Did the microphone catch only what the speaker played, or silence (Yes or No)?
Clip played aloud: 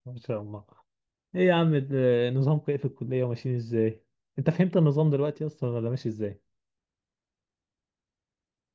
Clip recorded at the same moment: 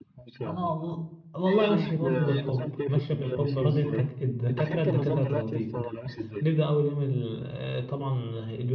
No